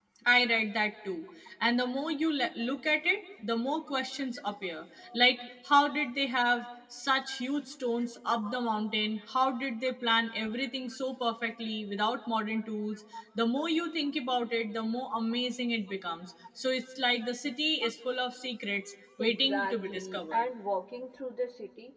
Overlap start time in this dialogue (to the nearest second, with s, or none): 19 s